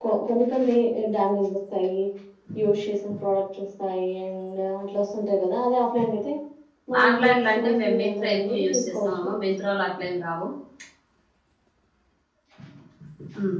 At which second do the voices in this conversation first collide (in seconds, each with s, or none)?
7.0 s